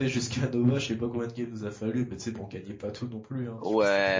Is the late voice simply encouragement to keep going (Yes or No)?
No